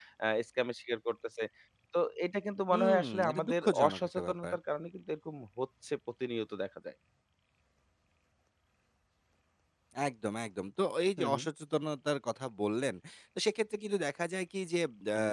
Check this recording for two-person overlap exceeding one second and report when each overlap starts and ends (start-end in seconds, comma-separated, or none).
2.7-4.5